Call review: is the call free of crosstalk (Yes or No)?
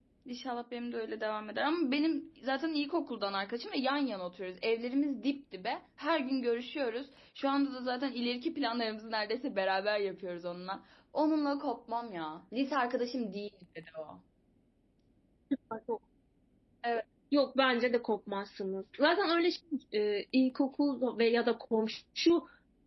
Yes